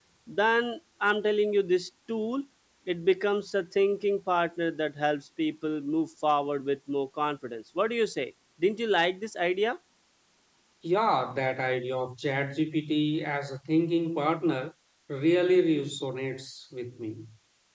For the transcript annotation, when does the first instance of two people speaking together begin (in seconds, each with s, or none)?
none